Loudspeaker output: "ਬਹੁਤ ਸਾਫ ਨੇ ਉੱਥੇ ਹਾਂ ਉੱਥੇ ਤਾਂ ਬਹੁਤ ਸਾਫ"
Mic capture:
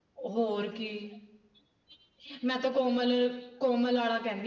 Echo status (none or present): none